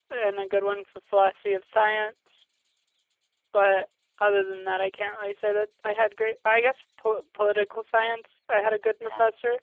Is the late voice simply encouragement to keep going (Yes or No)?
Yes